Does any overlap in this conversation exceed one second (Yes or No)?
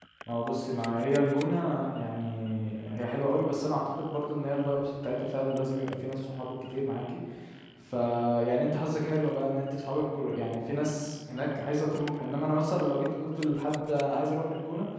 No